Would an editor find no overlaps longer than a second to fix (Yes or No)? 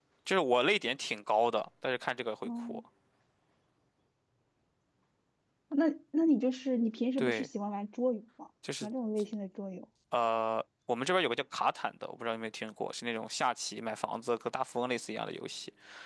Yes